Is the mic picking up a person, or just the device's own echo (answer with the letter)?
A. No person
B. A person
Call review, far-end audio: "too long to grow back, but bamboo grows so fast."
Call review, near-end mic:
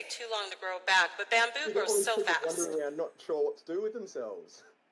B